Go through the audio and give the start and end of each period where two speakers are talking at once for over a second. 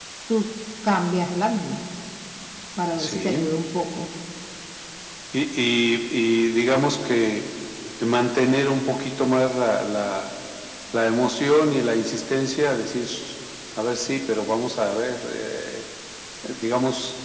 none

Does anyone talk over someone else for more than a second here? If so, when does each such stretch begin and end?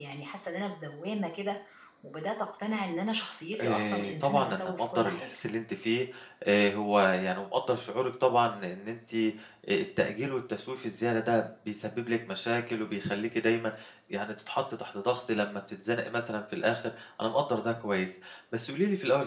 3.6-5.4

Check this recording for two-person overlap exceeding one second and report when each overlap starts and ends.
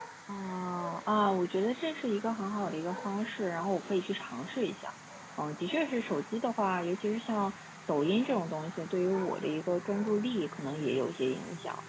none

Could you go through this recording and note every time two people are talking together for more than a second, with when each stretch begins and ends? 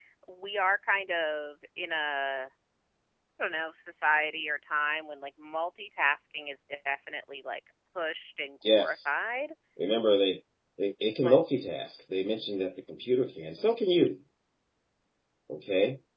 none

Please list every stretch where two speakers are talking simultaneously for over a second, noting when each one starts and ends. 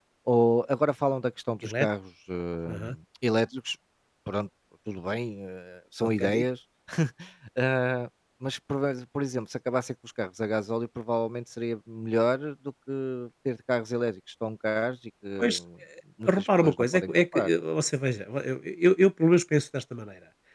16.2-17.5

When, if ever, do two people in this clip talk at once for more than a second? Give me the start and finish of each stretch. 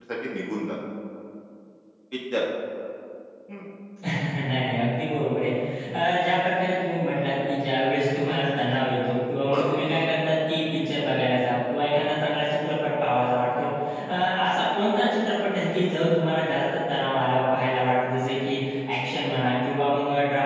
none

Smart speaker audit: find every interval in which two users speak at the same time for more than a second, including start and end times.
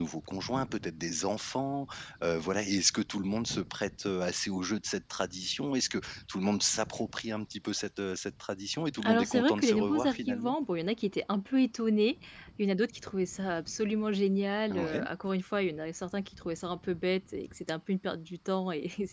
9.1-10.5

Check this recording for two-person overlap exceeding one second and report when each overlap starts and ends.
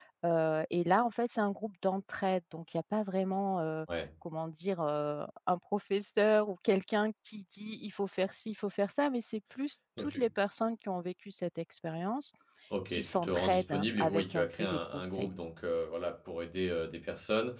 12.9-15.3

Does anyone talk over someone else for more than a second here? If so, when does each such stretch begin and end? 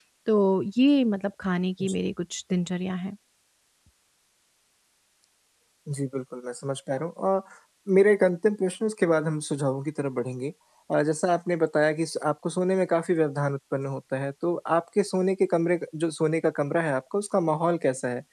none

